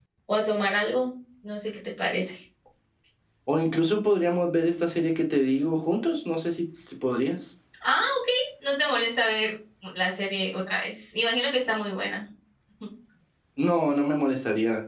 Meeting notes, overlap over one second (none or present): none